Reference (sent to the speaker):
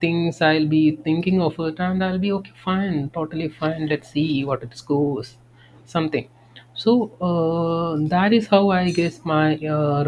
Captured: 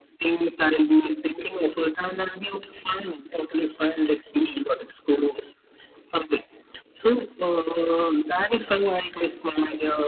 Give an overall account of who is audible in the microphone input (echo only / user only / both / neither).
echo only